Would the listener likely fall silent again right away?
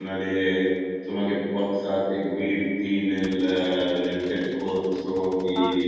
No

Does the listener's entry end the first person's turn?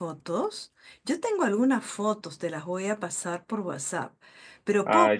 No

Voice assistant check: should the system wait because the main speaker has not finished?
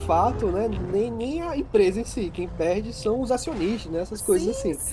No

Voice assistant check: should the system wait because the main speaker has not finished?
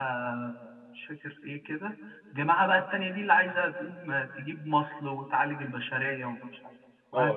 No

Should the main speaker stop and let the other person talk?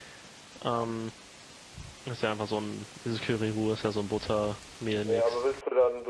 Yes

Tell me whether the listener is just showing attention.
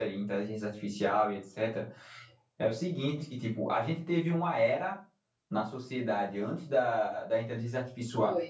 Yes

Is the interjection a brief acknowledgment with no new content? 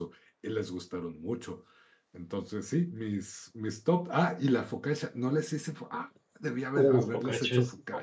No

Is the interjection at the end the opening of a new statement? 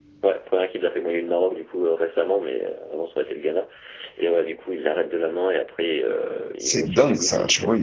Yes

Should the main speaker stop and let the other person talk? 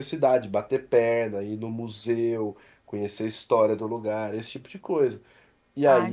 Yes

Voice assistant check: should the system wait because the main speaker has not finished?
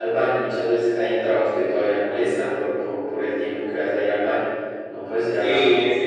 No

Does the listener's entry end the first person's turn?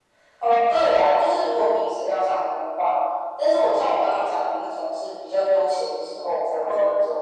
No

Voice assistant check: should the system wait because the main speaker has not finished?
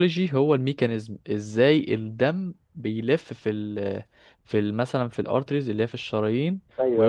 Yes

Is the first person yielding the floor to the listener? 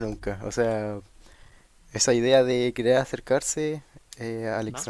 No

